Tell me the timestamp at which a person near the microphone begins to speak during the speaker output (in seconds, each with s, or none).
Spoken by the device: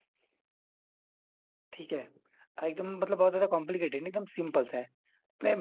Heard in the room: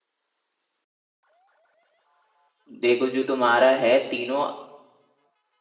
2.8 s